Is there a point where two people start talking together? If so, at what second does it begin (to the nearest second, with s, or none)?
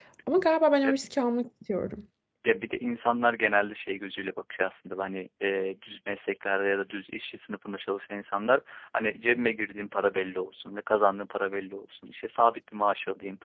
none